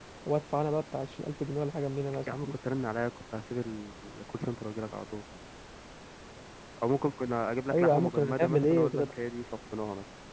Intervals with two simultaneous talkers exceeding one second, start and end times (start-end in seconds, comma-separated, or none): 7.7-9.0